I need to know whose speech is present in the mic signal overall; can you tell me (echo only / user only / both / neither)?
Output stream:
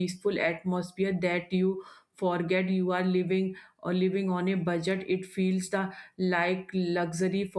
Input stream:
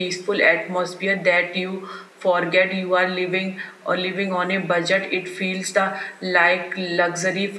echo only